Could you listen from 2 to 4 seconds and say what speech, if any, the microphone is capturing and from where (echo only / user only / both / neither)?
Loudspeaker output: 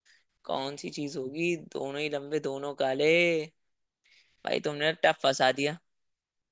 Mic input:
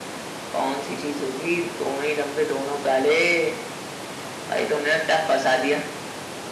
echo only